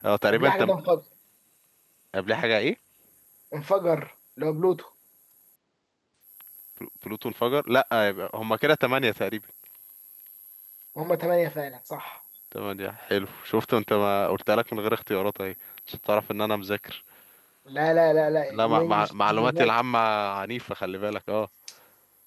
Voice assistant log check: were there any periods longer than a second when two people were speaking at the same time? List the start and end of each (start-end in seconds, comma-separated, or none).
18.5-19.7